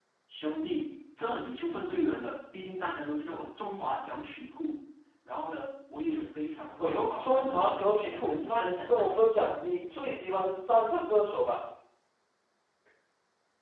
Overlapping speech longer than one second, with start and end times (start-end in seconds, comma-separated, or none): 6.8-9.3